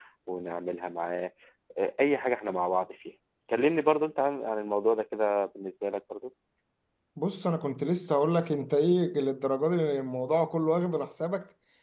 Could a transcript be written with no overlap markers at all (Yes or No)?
Yes